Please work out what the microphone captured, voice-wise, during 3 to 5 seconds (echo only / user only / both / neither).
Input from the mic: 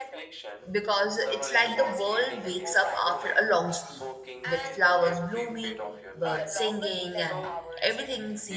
both